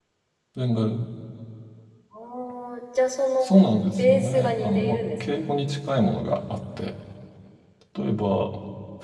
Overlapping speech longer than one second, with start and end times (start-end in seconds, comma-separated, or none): 4.0-5.5